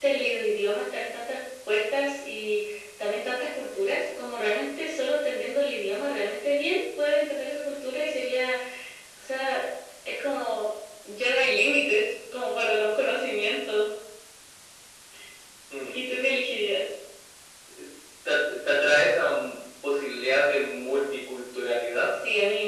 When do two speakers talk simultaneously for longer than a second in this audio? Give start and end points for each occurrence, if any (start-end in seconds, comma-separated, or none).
none